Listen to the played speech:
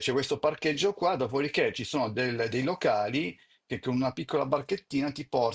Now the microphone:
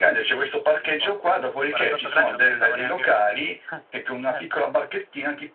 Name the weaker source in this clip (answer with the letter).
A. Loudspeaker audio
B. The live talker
B